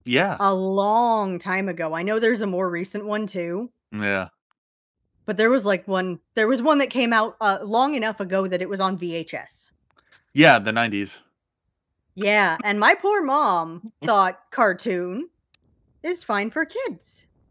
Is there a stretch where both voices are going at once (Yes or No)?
No